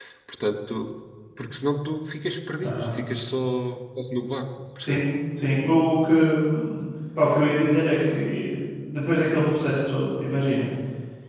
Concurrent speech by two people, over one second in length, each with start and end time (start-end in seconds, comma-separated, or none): none